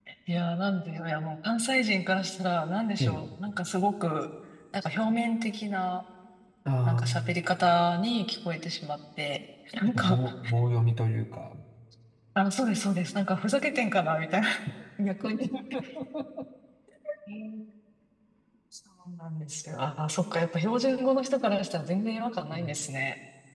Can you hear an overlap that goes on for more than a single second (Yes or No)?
No